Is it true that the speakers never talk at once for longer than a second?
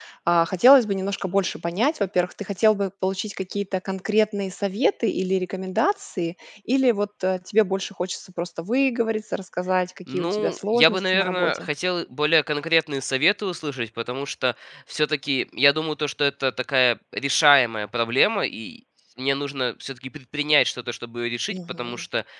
No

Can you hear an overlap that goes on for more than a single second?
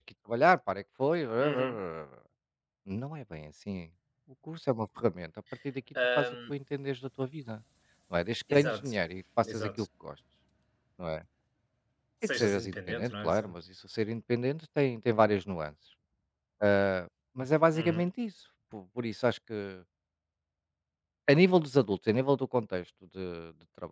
Yes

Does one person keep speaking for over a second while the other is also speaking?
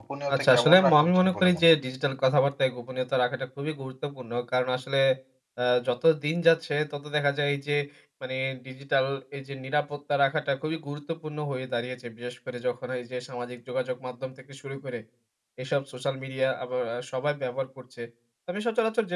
Yes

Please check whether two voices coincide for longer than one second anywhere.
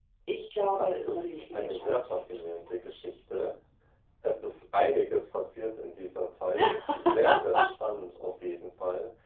Yes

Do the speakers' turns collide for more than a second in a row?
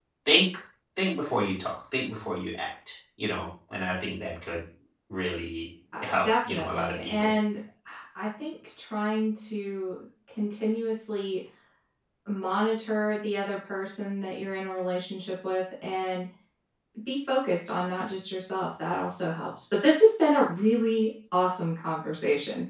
Yes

